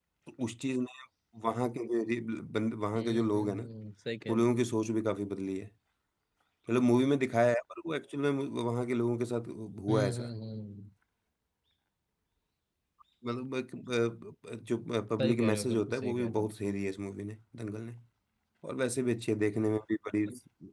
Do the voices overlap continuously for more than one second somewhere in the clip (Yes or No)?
Yes